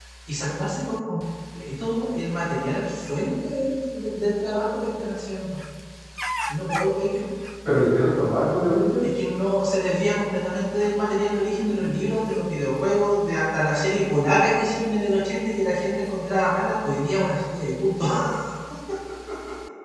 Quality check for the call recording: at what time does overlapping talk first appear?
none

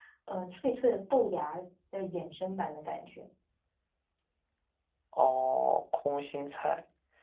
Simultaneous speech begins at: none

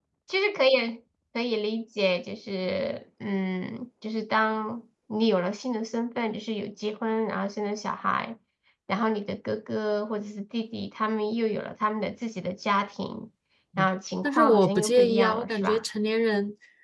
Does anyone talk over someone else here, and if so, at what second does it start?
14.2 s

